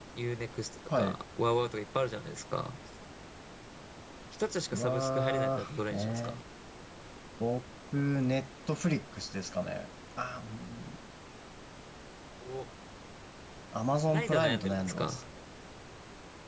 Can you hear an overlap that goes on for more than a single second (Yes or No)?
Yes